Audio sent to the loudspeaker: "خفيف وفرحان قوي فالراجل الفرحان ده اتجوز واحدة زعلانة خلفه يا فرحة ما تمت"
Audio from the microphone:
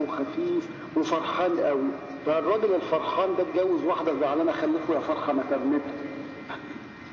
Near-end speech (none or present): none